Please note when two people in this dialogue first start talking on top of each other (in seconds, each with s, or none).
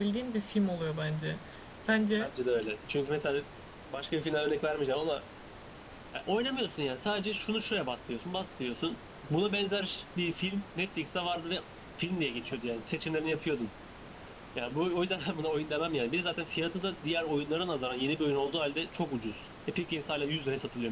none